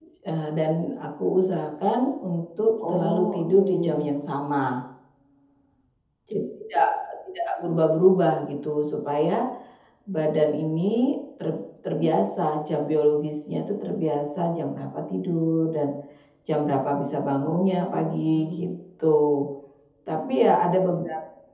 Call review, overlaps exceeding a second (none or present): present